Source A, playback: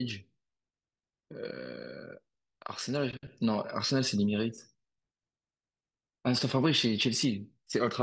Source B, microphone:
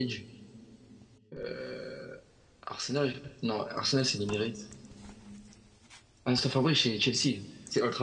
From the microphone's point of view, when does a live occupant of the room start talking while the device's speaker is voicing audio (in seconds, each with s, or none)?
none